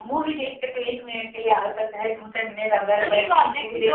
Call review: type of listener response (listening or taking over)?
taking over